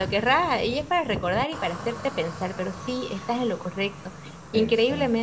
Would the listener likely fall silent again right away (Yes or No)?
Yes